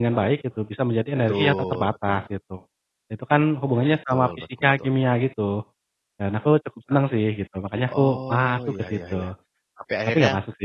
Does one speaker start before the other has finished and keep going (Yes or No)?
Yes